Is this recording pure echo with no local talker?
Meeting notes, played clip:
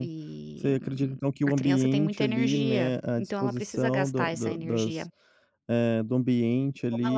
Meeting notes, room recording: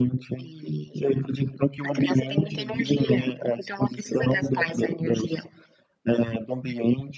Yes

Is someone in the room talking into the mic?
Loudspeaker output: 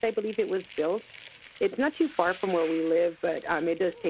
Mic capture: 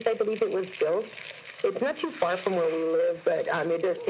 No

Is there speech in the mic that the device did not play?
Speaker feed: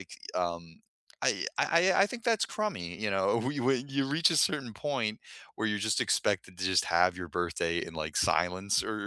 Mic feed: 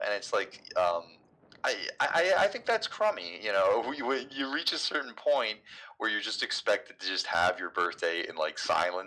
No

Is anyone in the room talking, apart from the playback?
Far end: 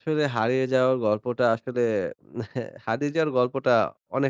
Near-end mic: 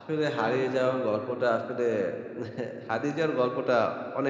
No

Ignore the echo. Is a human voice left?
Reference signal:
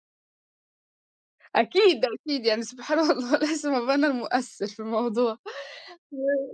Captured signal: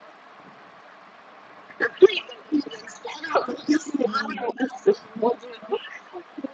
Yes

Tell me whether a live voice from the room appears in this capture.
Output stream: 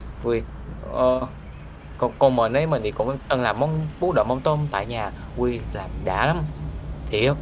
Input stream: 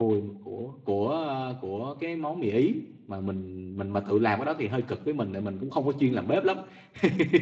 Yes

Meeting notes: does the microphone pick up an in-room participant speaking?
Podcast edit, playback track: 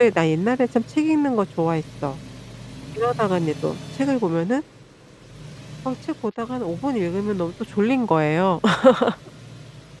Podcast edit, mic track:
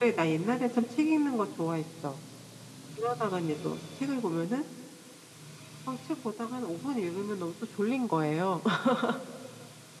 No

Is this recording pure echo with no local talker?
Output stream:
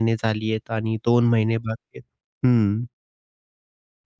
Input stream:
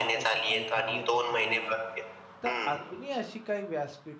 No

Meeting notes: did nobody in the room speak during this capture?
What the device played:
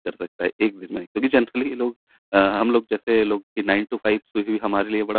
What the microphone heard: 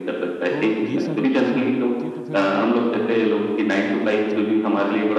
No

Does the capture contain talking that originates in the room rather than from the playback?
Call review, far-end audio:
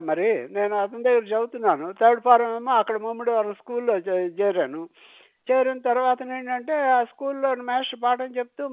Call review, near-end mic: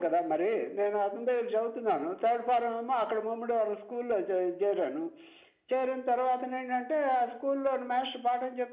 No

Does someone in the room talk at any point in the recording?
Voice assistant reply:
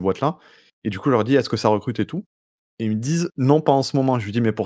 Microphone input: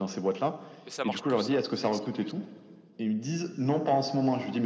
Yes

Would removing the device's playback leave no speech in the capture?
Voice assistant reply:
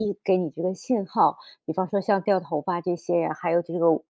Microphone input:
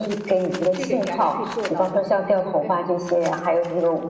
No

